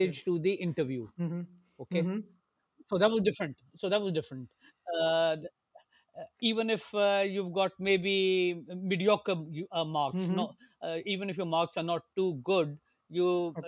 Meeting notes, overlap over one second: none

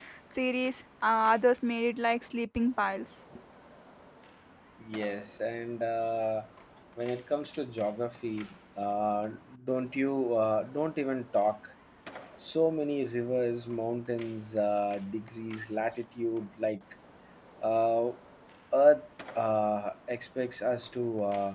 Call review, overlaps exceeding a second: none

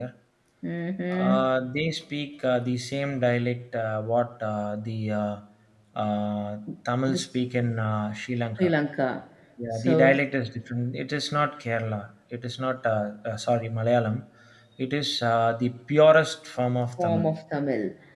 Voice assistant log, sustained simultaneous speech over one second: none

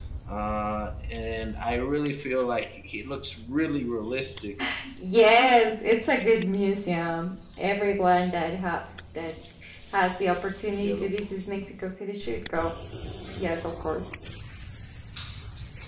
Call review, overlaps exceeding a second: none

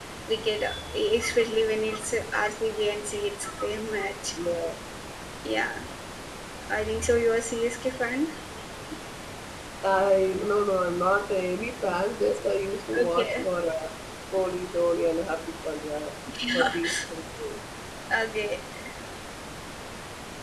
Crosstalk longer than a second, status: none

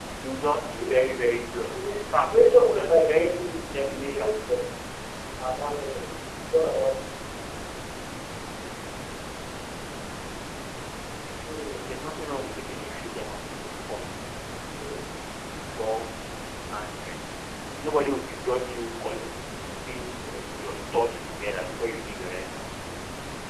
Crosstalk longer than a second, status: present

